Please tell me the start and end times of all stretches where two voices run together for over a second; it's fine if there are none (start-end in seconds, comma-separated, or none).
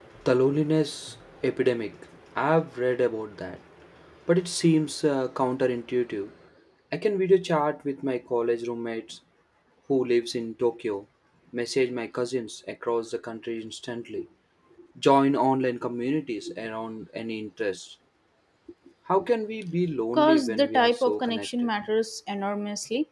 20.1-21.7